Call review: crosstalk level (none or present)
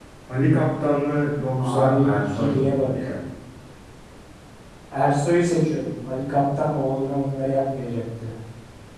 present